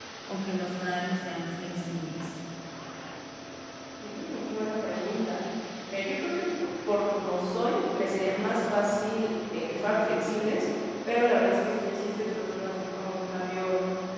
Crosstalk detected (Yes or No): No